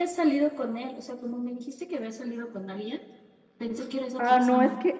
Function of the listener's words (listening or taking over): taking over